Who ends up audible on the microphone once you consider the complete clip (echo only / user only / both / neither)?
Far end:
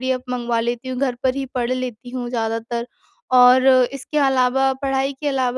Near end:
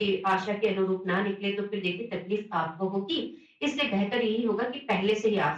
user only